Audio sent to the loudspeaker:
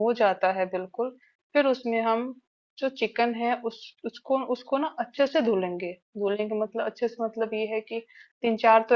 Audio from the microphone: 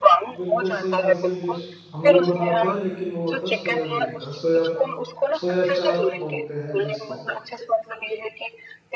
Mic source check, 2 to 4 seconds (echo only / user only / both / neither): both